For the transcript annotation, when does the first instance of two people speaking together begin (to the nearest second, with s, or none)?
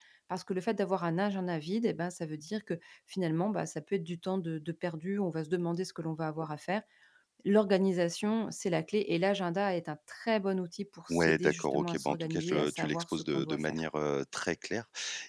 11 s